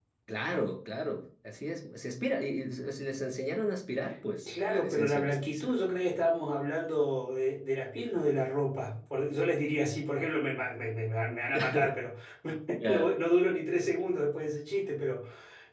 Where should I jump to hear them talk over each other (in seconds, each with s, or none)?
4.5 s